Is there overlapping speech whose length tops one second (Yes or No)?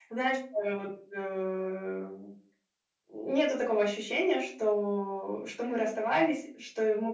No